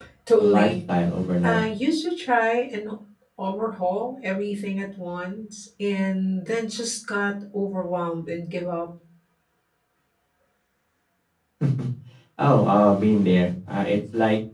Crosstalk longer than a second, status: none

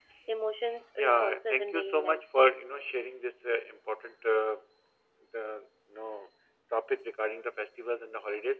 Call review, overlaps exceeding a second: present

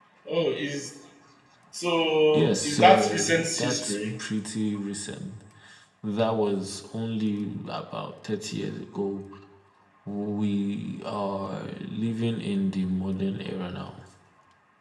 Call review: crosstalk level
present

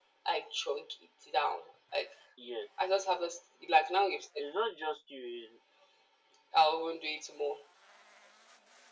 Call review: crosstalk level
none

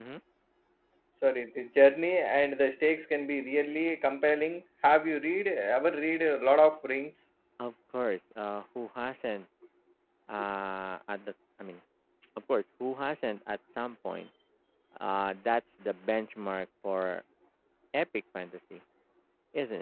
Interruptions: none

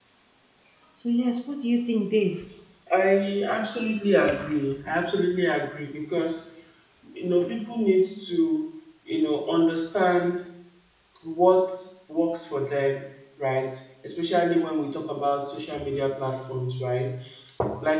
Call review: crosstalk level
none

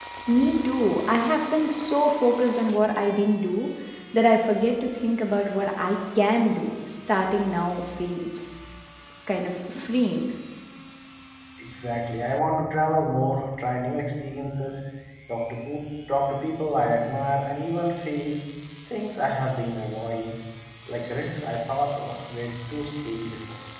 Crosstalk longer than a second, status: none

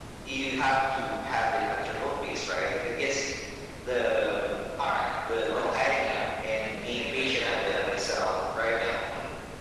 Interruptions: present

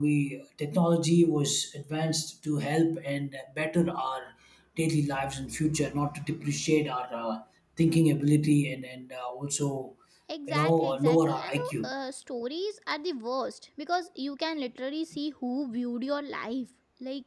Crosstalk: present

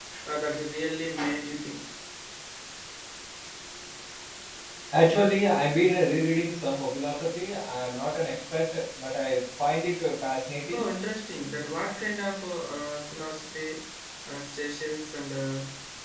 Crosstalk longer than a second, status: none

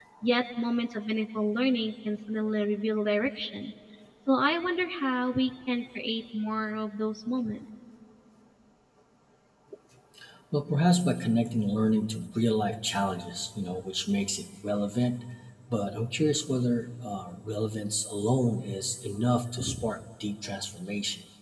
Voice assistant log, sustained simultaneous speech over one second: none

